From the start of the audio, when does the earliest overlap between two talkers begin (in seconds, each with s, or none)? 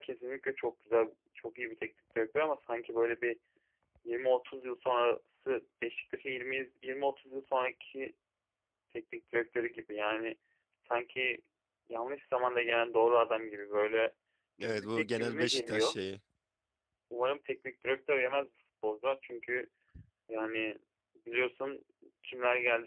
14.6 s